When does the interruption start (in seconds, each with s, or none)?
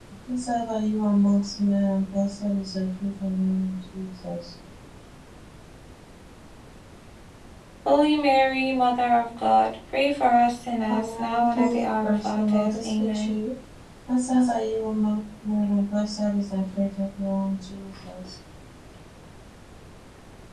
10.9 s